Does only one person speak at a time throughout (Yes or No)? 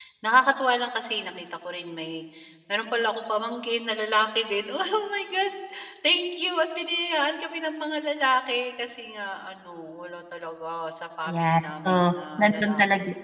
No